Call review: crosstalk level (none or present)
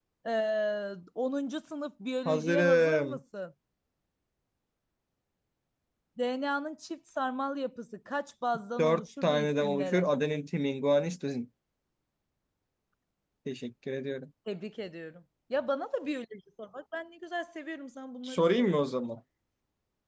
present